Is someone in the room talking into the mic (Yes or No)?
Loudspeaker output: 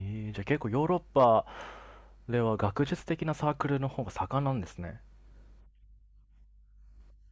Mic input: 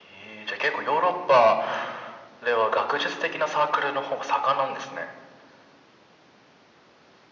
No